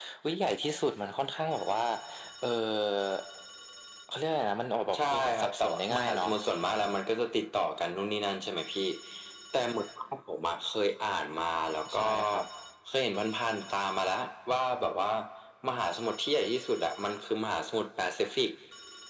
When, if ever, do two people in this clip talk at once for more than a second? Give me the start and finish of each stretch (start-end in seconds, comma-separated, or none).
4.9-6.3